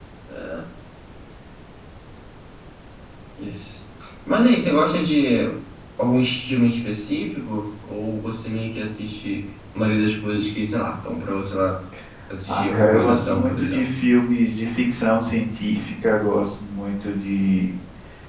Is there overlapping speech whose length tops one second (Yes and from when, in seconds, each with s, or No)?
Yes, from 12.5 s